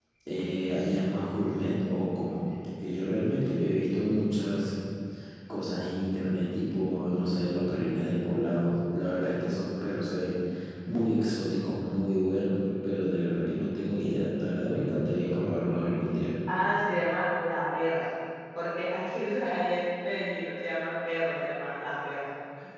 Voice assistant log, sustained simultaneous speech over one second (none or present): none